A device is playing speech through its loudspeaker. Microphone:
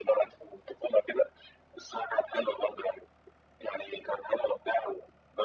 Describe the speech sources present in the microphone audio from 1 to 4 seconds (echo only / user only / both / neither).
echo only